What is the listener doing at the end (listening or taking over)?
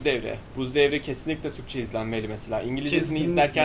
taking over